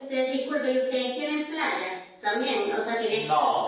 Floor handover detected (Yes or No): Yes